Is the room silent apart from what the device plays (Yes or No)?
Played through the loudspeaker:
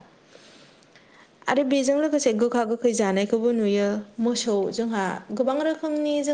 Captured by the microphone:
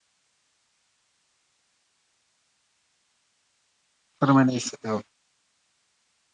No